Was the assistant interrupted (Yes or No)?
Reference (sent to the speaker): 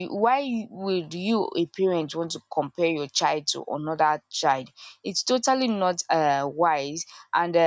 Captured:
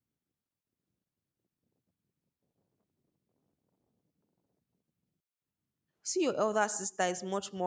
Yes